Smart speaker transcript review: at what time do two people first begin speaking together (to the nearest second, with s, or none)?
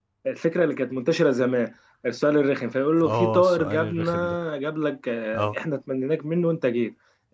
3 s